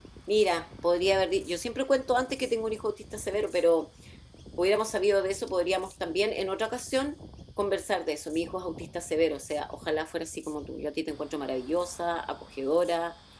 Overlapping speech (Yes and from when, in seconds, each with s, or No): No